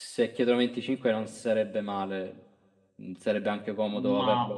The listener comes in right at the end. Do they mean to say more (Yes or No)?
Yes